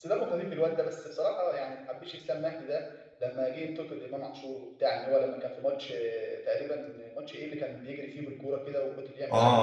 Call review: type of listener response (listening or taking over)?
taking over